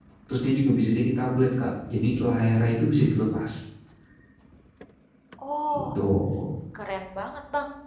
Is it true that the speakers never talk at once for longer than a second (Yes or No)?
Yes